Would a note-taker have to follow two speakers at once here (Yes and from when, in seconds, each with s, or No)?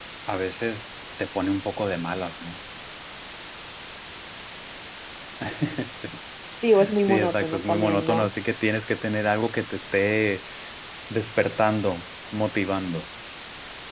Yes, from 7.0 s